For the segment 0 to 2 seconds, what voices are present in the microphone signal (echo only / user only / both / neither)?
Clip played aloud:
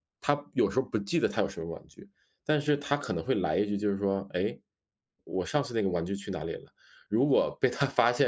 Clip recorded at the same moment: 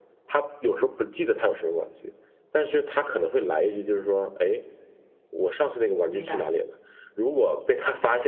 echo only